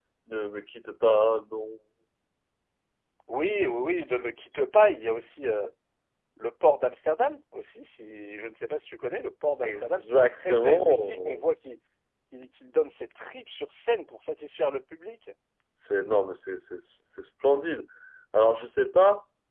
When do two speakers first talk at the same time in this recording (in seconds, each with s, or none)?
9.6 s